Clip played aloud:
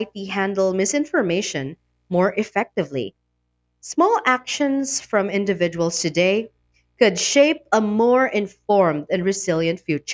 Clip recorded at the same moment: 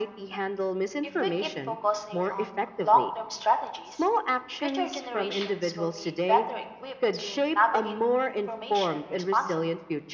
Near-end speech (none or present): present